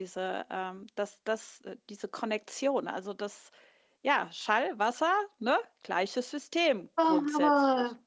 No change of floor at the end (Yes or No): No